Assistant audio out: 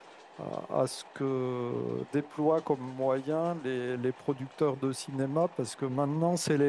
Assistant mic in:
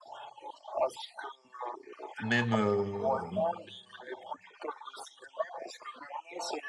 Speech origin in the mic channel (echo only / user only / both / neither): both